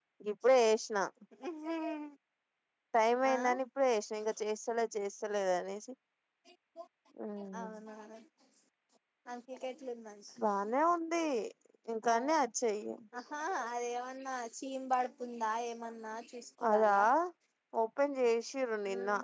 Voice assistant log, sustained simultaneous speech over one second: none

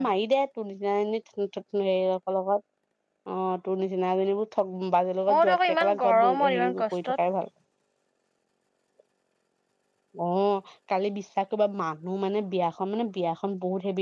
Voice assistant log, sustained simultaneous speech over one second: present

